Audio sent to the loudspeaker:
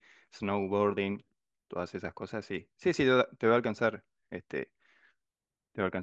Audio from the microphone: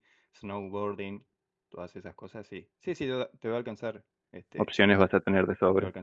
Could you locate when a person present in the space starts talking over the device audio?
4.5 s

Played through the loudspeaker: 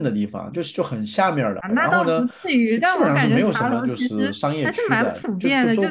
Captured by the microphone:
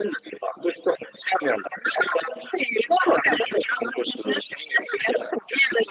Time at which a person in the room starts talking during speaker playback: none

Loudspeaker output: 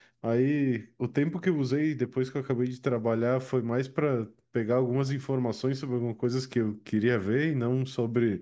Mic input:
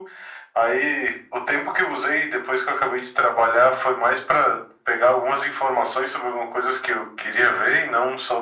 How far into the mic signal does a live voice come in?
none

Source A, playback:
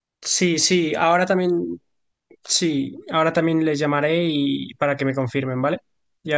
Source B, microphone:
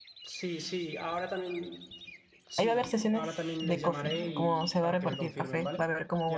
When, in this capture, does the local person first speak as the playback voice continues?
2.6 s

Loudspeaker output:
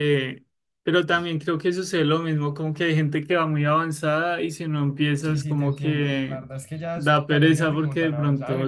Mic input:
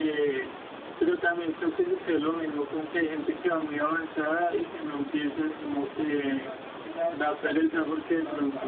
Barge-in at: none

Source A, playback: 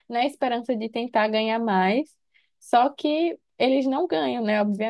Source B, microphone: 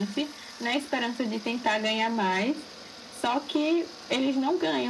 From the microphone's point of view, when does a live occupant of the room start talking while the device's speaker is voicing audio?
none

